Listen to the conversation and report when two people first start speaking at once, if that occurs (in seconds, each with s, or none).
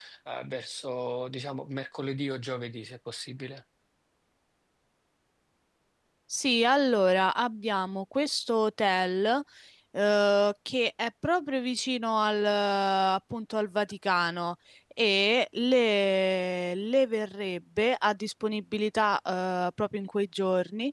none